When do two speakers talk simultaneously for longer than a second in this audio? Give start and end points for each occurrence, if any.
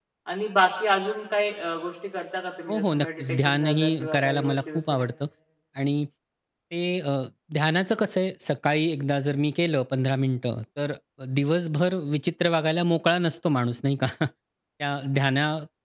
2.7-5.1

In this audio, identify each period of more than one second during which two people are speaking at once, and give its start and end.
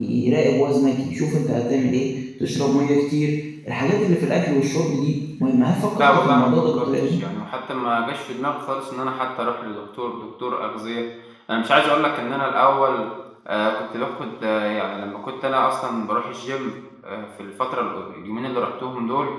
6.0-7.2

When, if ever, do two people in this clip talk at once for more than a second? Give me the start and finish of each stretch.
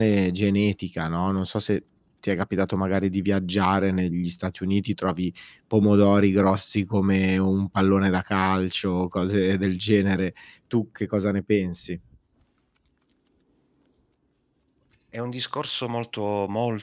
none

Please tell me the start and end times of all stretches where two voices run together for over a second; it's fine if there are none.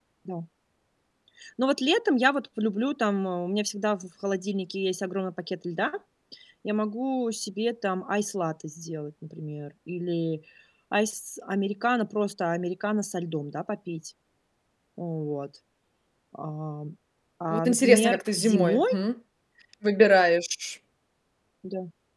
17.5-18.8

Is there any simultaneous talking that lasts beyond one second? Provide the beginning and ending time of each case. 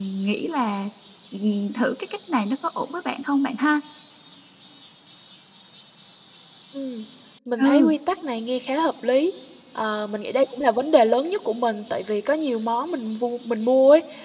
none

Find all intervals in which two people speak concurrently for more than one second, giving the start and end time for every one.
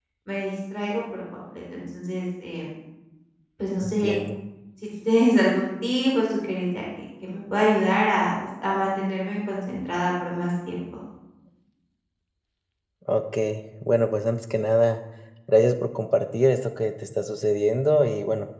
none

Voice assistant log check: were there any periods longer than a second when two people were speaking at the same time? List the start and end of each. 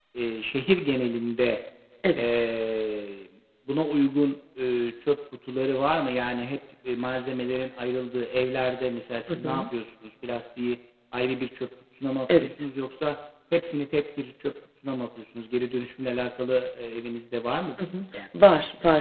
none

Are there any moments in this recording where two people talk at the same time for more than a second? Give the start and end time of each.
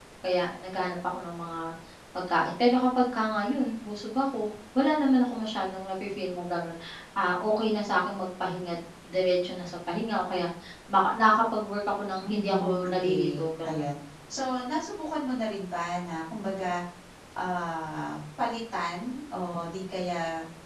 12.2-13.8

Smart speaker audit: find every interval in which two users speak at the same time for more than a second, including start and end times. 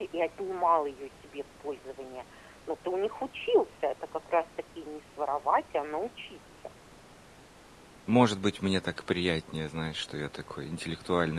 none

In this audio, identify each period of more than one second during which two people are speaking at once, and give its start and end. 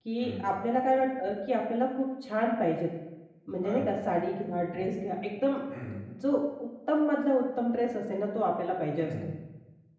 none

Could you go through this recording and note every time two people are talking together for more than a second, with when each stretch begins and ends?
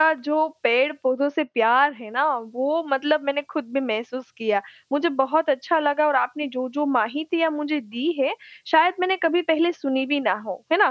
none

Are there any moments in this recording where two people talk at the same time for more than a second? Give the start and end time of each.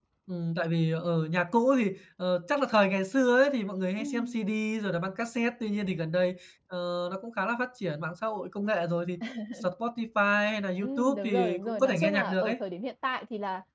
10.8-12.6

